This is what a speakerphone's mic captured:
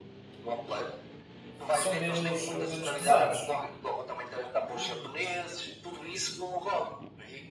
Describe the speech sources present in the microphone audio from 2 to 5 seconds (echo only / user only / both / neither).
both